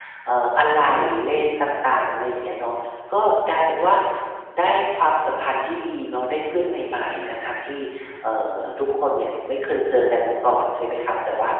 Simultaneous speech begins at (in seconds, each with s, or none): none